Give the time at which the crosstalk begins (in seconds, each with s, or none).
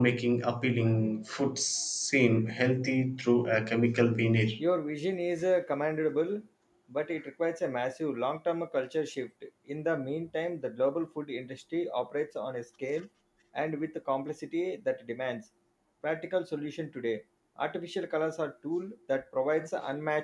none